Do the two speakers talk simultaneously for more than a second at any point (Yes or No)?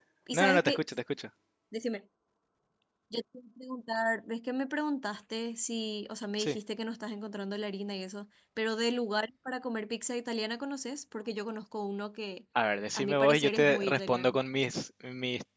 Yes